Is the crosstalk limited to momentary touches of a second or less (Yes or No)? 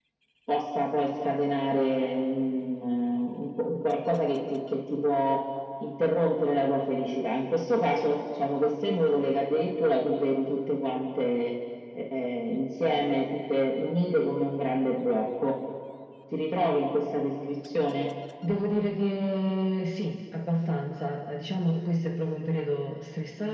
Yes